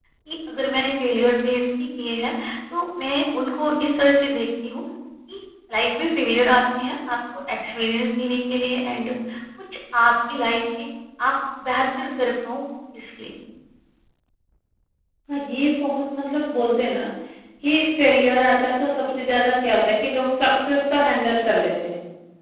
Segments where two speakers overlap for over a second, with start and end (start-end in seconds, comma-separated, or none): none